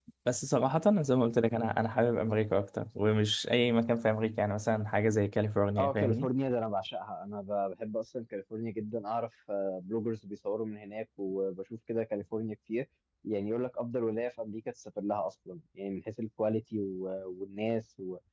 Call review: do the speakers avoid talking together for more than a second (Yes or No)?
Yes